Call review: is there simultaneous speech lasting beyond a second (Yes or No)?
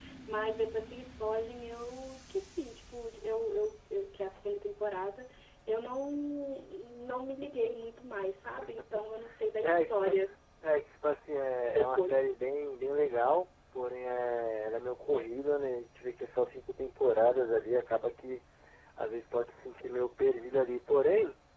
No